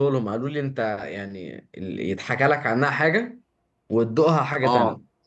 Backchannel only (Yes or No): No